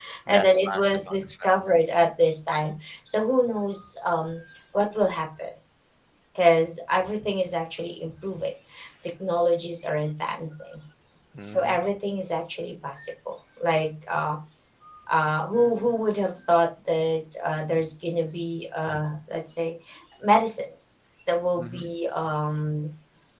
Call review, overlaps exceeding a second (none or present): present